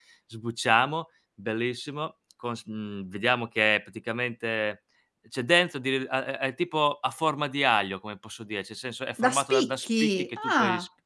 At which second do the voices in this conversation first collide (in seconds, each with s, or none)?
9.2 s